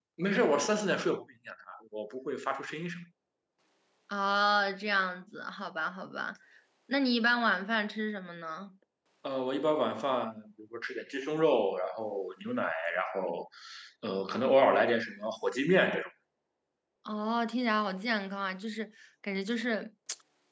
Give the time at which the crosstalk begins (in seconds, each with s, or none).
none